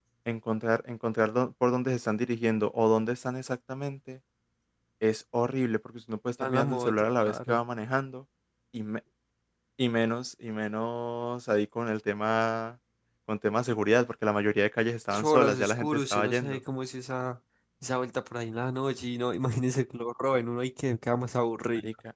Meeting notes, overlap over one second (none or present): present